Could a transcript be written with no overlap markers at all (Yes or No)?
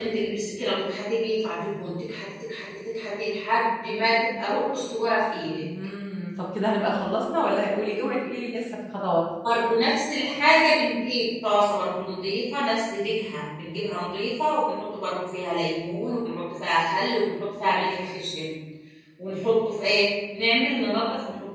Yes